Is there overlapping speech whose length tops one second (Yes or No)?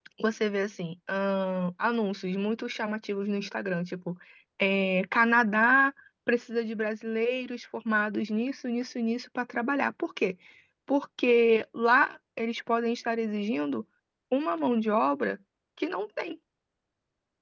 No